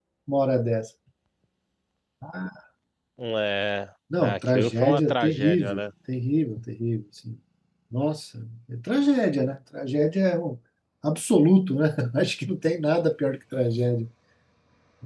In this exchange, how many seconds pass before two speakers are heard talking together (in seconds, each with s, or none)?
4.1 s